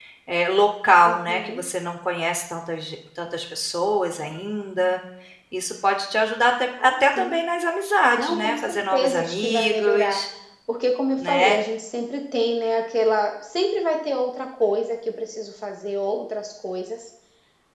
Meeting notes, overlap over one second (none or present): present